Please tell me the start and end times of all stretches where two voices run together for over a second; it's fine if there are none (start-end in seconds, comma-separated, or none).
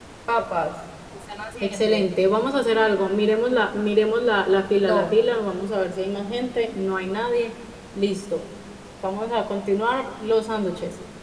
none